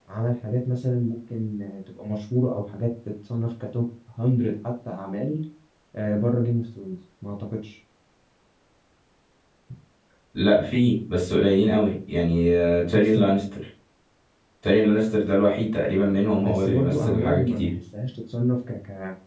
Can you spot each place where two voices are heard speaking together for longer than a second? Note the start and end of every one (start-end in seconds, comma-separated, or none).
16.4-17.7